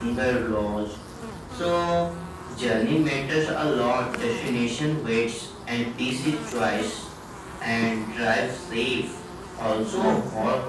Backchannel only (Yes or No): Yes